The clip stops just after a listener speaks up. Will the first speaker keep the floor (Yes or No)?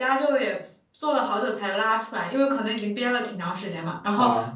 Yes